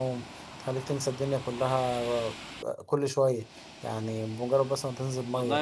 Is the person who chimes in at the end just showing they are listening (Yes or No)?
No